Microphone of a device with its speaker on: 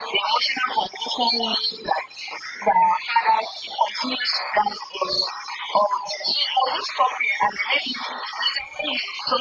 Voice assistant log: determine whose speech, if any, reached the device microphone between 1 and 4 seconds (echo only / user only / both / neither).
echo only